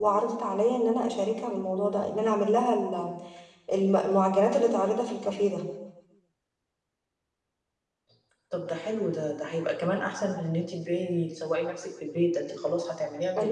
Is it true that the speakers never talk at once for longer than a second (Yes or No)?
Yes